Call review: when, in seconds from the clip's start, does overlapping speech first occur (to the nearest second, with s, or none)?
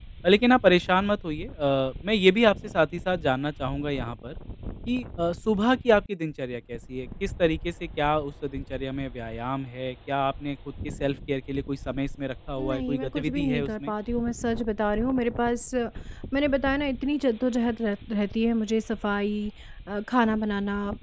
13 s